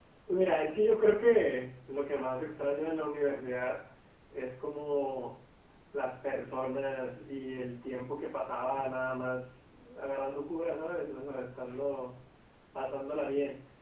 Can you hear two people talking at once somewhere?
No

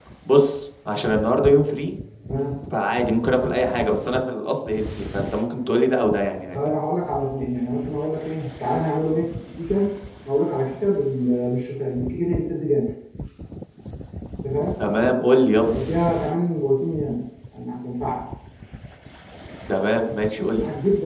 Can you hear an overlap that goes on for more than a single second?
No

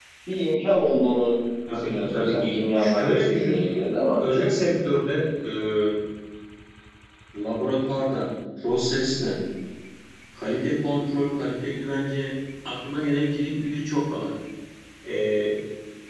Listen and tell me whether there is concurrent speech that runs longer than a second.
Yes, from 1.7 s

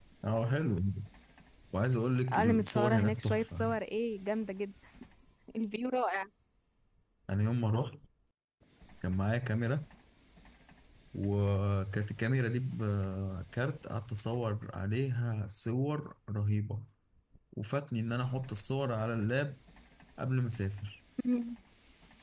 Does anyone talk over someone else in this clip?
Yes, from 2.3 s

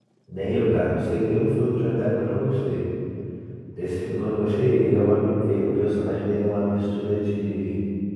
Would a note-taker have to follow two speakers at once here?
No

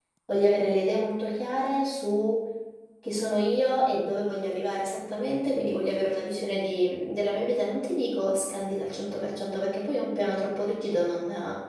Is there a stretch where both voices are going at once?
No

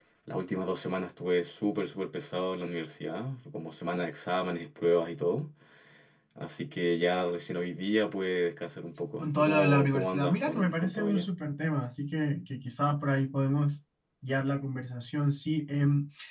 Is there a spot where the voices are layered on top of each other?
Yes, from 9.2 s

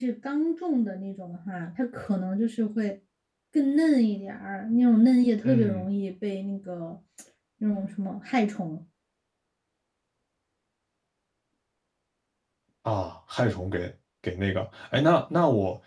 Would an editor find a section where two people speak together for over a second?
No

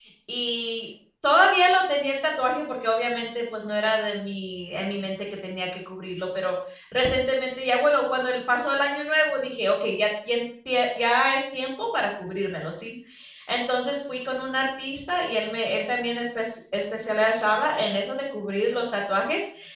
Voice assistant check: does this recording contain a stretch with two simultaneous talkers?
No

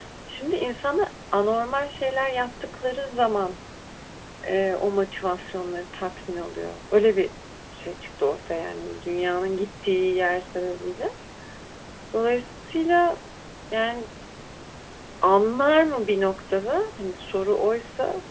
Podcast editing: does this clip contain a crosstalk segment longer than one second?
No

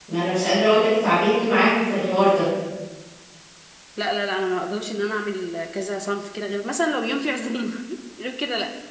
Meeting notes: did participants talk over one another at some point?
No

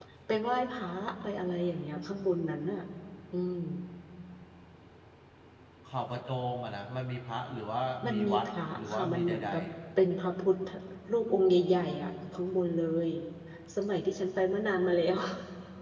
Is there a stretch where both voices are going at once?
Yes, from 8.0 s

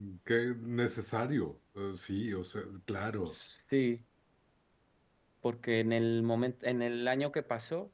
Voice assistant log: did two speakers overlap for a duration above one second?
No

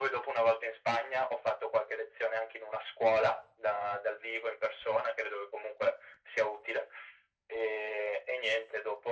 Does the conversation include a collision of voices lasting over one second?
No

